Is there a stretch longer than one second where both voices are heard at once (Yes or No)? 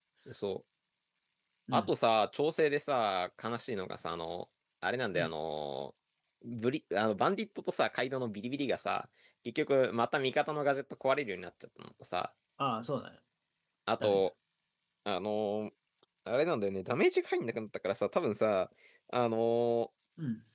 No